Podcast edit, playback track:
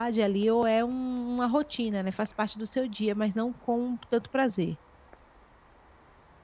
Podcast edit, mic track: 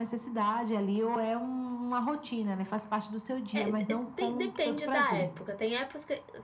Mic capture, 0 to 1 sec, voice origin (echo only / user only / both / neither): echo only